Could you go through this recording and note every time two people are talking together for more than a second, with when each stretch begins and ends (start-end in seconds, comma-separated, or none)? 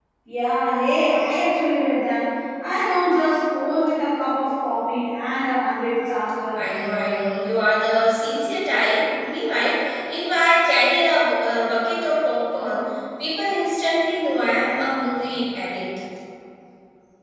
none